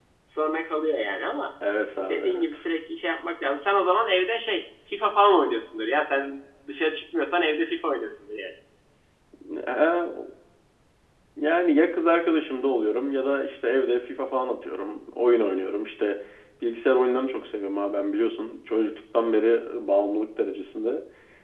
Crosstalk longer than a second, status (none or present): none